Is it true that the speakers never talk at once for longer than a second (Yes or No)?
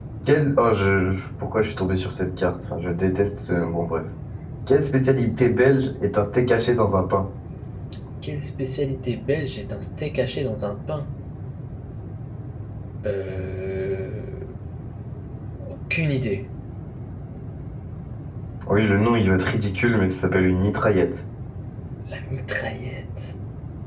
Yes